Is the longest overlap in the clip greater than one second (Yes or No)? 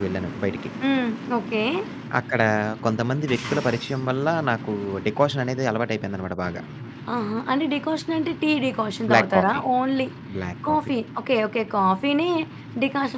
No